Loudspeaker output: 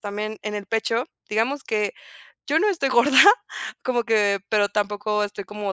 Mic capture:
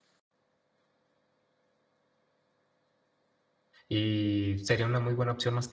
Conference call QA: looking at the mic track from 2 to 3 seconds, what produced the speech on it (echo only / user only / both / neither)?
neither